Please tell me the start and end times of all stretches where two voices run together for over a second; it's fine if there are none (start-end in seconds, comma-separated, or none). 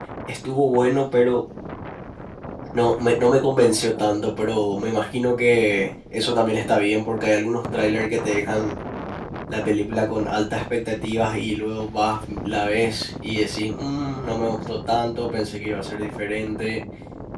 none